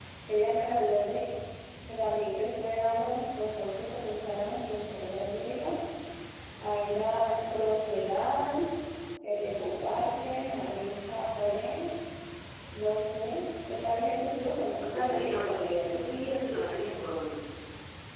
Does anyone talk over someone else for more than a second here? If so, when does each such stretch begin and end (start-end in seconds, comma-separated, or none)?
14.8-16.2